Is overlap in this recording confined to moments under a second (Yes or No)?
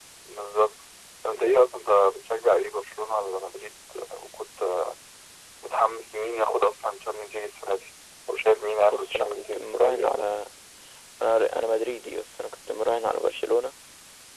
No